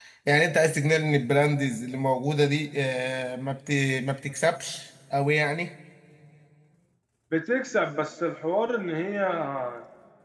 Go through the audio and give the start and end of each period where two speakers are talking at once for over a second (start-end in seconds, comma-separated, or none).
none